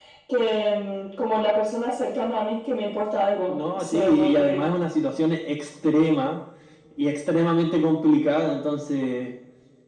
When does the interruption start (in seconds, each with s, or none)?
3.5 s